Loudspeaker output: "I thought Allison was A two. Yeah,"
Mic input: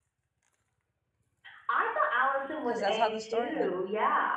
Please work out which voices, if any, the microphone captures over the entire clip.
both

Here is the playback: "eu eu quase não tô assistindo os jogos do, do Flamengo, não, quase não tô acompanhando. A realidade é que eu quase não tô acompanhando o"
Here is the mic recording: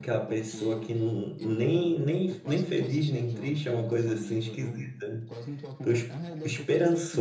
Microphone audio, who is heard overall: both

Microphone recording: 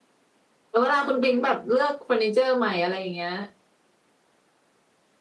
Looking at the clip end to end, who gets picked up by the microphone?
user only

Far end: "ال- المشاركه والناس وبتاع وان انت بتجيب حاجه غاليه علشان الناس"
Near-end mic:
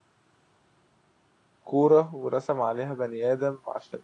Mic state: user only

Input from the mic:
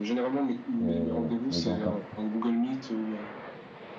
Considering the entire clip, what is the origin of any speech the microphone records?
both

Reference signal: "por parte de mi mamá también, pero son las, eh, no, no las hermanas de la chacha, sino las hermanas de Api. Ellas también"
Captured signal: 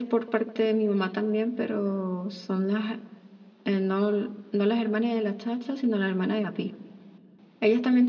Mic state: echo only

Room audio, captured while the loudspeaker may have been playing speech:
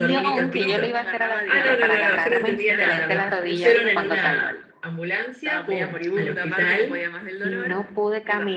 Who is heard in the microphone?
both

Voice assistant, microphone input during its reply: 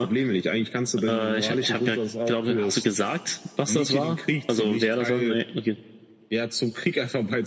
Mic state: echo only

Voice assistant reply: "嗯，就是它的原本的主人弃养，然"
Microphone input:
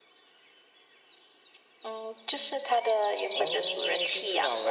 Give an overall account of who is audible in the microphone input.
both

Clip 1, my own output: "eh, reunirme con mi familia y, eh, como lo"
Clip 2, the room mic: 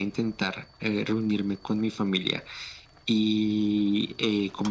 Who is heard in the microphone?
echo only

